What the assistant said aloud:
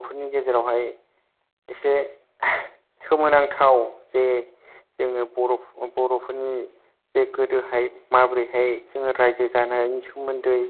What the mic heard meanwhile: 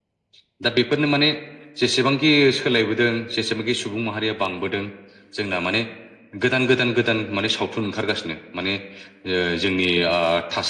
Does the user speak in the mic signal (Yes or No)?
Yes